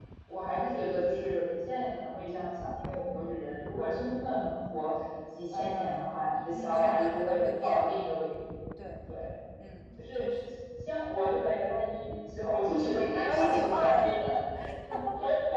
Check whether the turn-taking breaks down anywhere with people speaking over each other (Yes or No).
Yes